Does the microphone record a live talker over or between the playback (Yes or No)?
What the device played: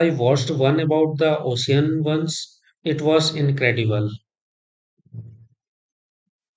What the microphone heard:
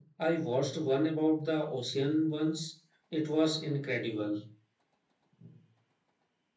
No